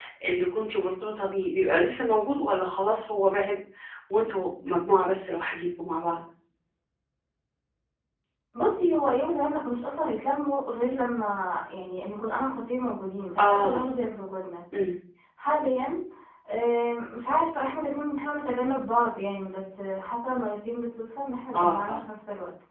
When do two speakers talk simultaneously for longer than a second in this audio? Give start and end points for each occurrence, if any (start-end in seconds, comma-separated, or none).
none